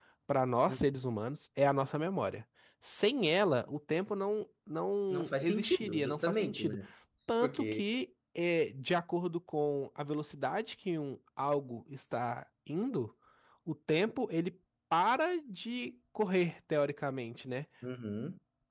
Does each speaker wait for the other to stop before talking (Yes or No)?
No